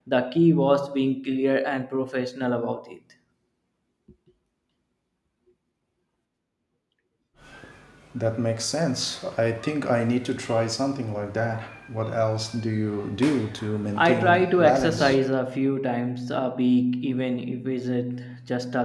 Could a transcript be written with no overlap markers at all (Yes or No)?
No